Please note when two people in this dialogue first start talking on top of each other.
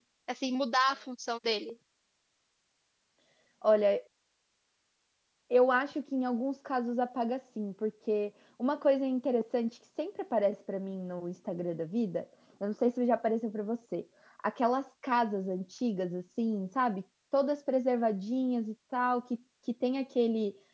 none

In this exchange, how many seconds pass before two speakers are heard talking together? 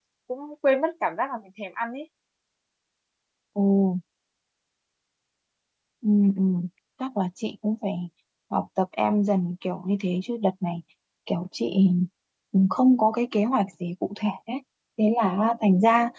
none

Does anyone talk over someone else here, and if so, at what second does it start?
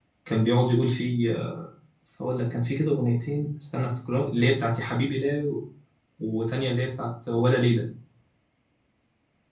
none

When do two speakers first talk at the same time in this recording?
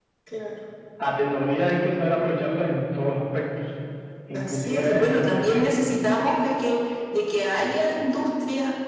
4.3 s

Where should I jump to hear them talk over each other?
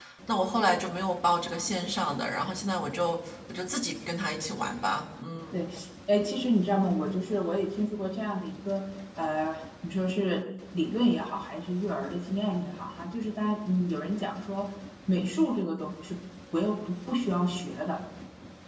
none

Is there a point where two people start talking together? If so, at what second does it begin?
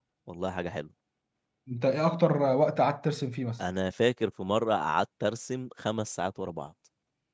none

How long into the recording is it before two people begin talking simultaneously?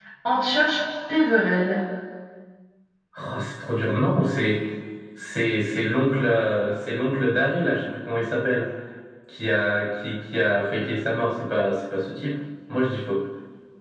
none

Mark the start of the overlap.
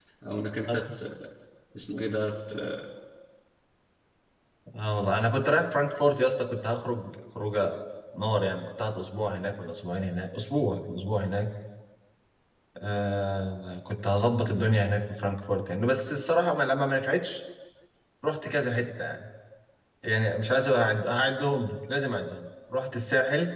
none

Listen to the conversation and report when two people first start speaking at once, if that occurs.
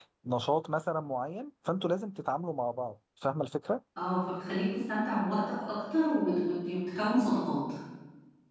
none

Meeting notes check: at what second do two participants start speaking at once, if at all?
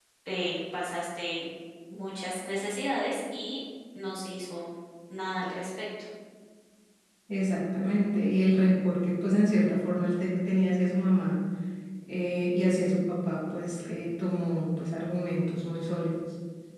none

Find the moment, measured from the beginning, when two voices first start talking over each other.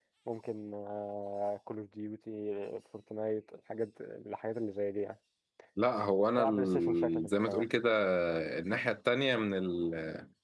6.4 s

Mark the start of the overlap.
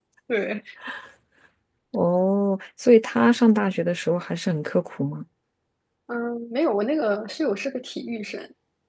none

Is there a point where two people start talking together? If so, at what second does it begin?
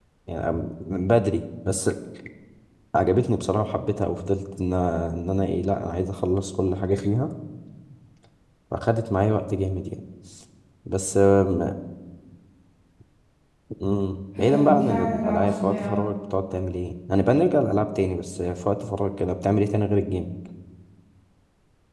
14.4 s

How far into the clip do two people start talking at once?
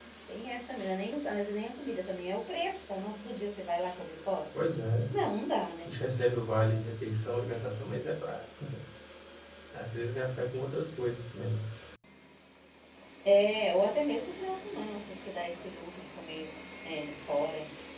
none

